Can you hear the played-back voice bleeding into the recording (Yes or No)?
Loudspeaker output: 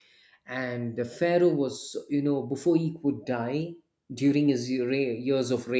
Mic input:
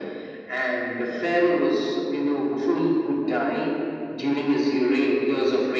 Yes